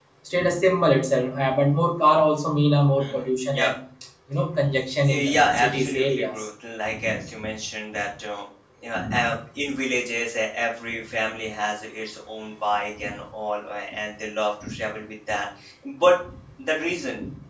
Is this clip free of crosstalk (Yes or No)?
No